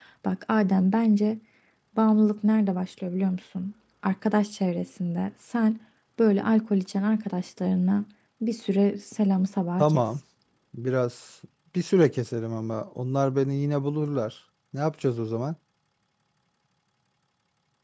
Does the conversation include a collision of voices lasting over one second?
No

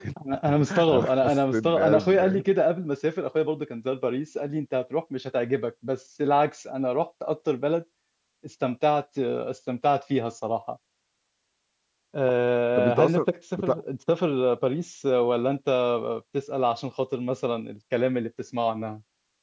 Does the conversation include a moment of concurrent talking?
Yes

